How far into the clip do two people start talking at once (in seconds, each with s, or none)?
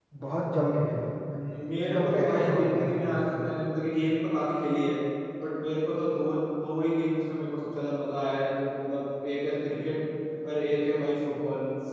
1.9 s